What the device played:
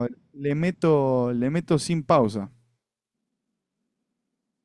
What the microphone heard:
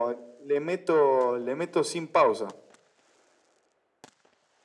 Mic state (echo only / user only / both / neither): echo only